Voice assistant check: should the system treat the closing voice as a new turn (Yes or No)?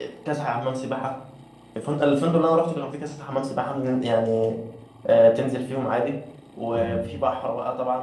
No